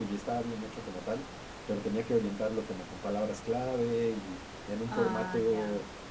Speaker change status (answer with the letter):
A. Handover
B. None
B